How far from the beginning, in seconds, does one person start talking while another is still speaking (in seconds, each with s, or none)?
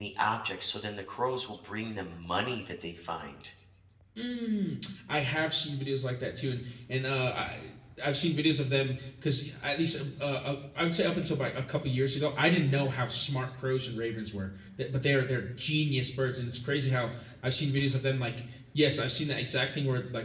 none